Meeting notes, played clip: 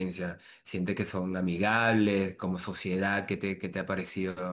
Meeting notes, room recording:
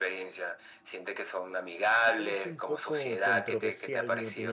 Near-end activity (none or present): present